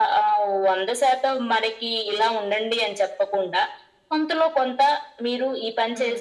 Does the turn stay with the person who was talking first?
Yes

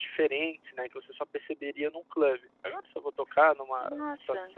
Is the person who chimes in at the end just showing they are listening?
Yes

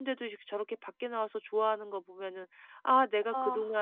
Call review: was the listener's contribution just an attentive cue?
Yes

